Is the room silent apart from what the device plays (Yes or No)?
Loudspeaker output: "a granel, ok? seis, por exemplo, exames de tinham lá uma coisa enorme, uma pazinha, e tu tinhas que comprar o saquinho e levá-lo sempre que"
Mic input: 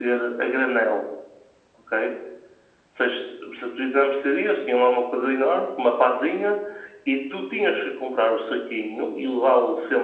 Yes